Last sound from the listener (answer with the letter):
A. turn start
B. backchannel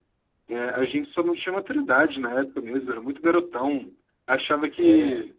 B